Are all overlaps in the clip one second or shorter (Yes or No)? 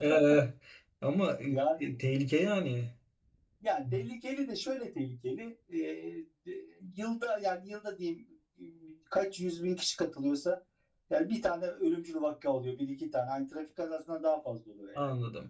Yes